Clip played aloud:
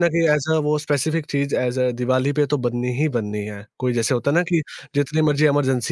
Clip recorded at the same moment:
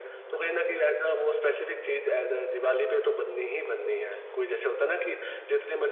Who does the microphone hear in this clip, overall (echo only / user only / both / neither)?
echo only